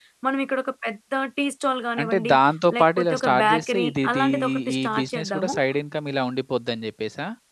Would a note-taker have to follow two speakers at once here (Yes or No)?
Yes